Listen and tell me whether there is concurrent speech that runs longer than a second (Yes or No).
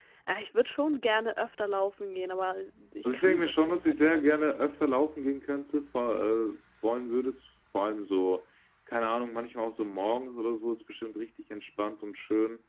Yes